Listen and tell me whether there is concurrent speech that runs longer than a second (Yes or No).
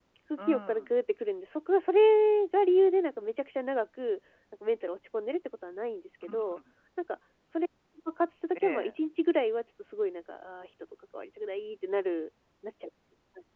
No